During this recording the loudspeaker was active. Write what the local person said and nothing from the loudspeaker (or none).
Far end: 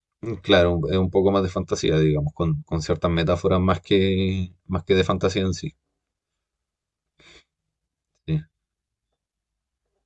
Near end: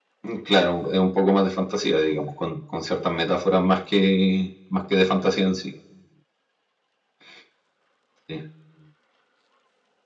none